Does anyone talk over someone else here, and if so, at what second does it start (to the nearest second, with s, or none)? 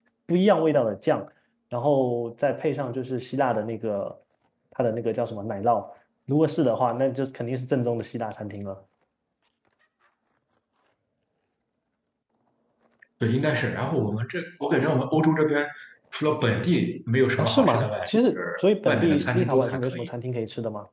17 s